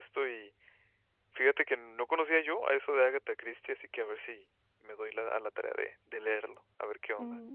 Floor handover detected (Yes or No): Yes